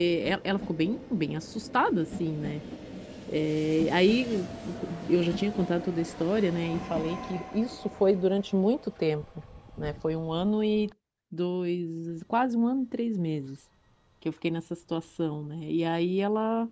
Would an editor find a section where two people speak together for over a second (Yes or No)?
No